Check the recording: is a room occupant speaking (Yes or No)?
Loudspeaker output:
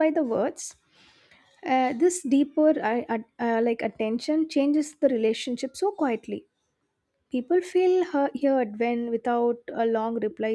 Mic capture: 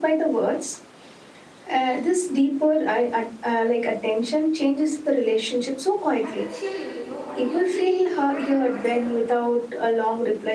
Yes